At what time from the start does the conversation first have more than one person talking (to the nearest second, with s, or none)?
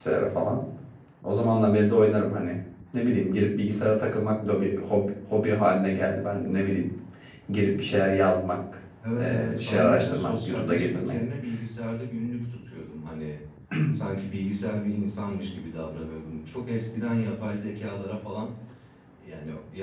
9 s